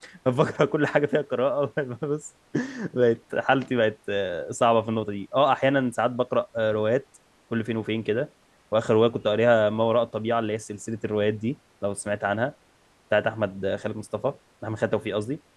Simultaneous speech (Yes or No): No